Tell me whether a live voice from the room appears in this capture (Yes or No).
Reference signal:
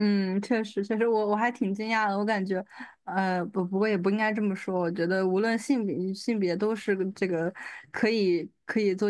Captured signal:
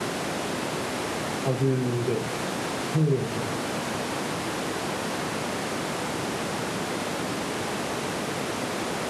Yes